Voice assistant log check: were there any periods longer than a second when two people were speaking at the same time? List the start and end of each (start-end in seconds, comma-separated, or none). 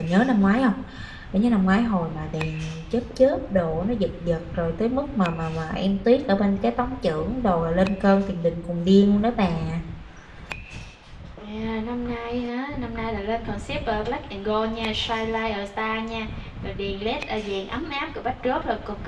none